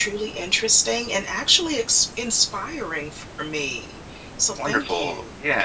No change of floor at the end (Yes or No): No